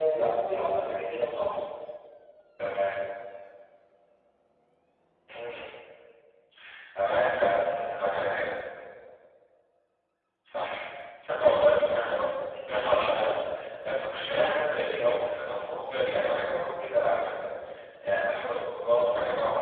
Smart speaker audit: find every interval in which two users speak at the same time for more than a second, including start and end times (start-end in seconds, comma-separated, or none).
none